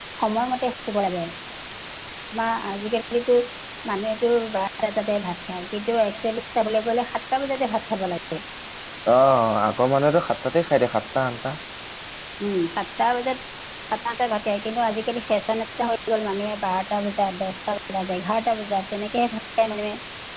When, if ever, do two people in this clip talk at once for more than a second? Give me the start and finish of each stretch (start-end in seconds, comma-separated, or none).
none